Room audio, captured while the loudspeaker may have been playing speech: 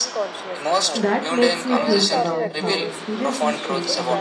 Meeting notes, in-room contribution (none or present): present